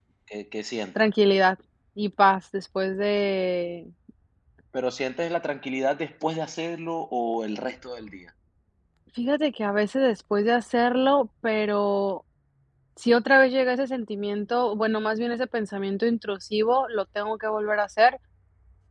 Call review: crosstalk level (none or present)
none